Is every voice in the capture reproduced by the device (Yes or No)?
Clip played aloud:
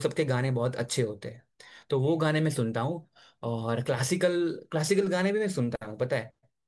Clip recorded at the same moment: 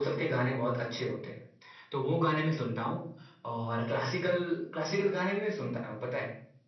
Yes